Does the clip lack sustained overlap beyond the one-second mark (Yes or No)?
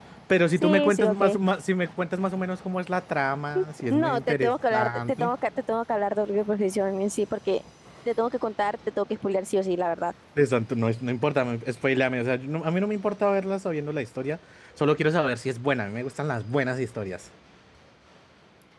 No